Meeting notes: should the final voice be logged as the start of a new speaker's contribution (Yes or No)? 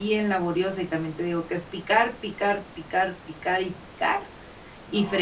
No